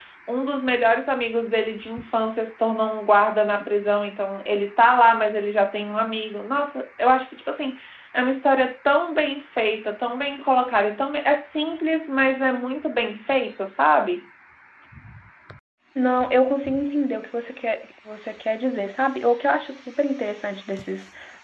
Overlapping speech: No

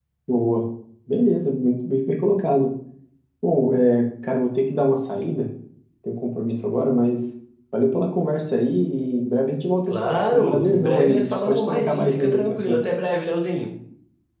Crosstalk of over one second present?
Yes, from 9.9 s

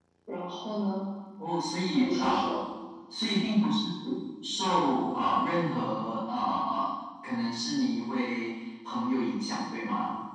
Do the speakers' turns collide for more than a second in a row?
No

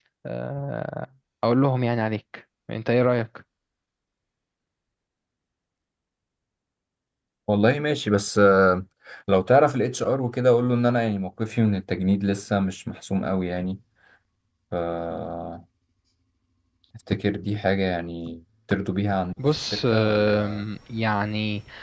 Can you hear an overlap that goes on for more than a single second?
Yes, from 19.4 s

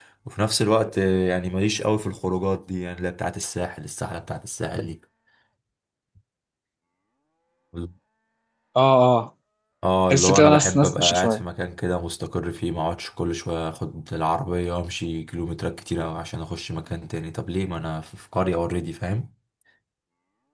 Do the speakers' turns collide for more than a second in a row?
Yes, from 10.1 s

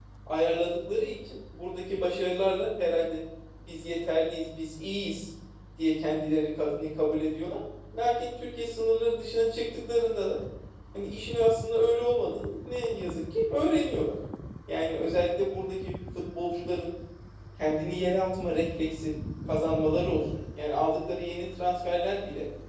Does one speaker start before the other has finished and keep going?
No

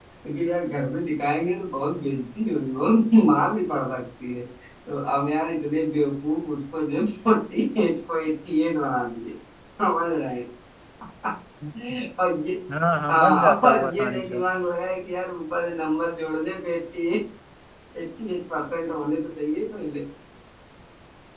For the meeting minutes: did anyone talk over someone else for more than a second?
Yes, from 13.1 s

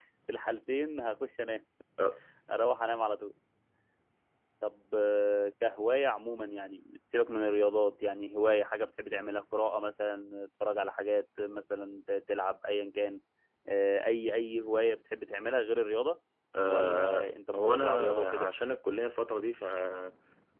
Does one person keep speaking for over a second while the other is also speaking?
Yes, from 16.7 s

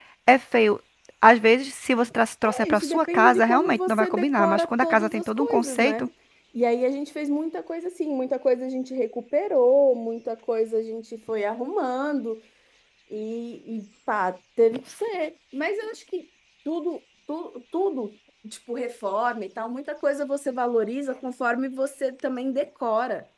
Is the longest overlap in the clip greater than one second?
Yes, from 2.4 s

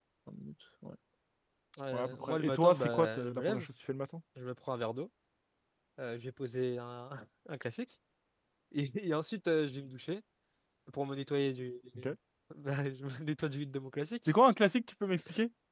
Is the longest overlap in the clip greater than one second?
Yes, from 1.9 s

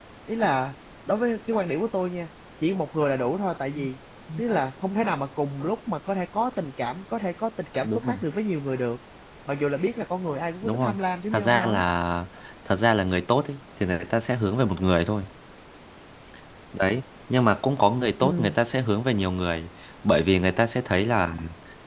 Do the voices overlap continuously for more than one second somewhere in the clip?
No

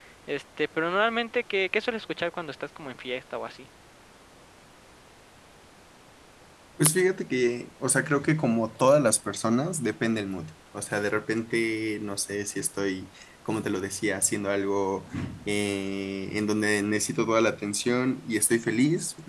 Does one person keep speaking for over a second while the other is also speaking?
No

